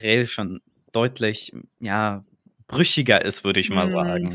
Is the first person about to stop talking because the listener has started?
Yes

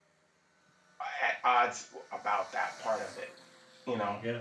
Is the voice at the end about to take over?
No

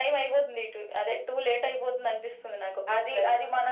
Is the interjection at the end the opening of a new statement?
Yes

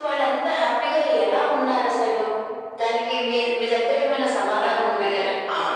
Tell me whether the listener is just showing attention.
No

